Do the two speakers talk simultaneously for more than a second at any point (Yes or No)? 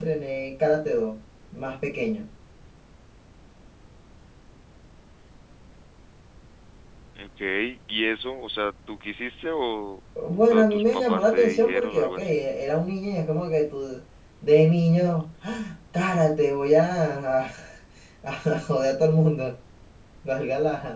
Yes